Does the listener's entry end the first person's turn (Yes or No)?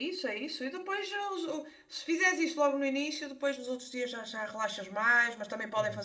No